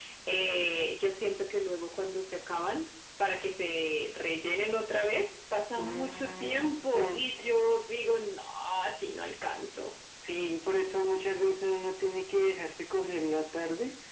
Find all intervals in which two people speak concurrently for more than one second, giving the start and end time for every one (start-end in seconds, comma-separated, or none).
5.8-7.2